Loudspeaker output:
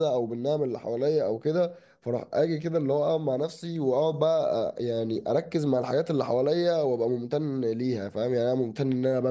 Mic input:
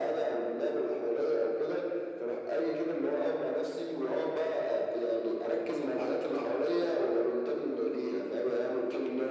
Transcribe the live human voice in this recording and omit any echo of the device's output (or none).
none